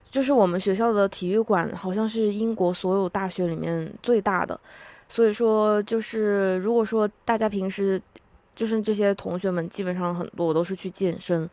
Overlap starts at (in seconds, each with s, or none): none